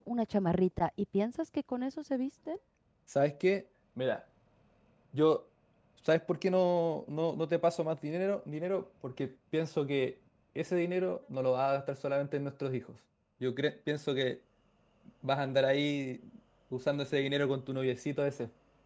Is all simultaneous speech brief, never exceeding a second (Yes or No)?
Yes